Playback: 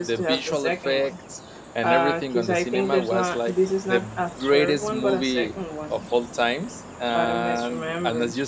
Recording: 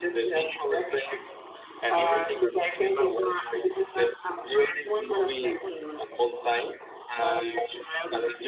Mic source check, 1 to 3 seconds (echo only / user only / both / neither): echo only